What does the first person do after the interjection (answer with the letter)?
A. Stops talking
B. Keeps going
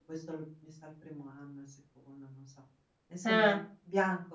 B